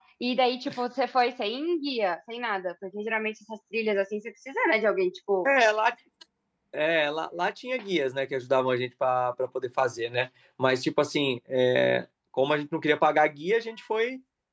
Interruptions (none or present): none